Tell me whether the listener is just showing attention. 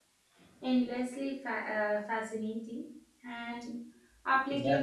Yes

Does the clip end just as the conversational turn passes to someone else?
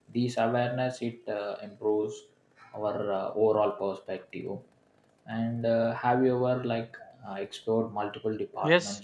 Yes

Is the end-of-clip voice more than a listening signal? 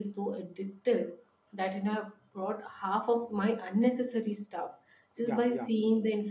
No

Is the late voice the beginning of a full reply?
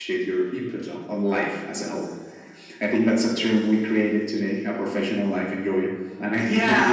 Yes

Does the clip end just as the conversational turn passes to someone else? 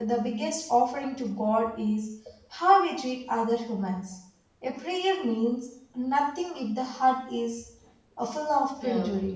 Yes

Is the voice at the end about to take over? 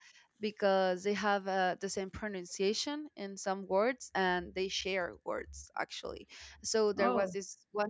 No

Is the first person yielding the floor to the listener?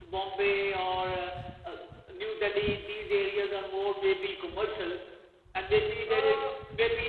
No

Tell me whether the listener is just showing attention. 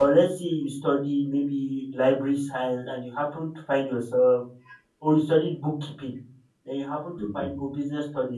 Yes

